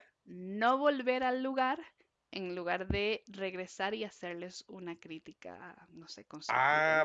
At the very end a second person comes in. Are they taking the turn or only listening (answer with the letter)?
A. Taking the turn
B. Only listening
A